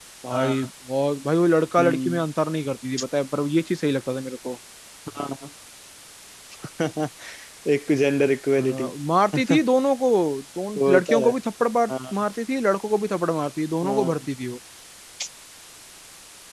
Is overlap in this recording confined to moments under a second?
Yes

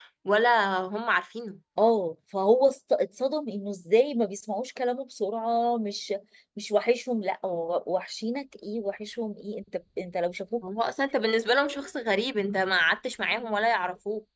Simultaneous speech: No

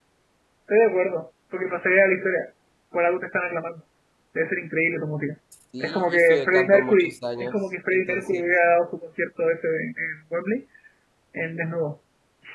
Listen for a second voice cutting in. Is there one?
Yes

